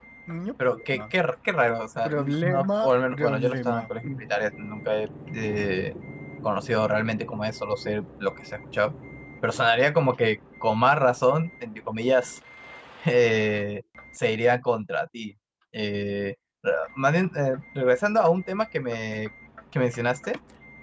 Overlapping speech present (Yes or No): Yes